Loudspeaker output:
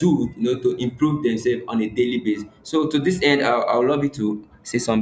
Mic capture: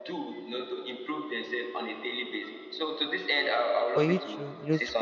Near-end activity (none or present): present